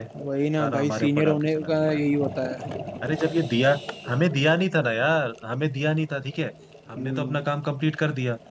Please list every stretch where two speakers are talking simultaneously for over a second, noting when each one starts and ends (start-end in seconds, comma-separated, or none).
0.6-2.0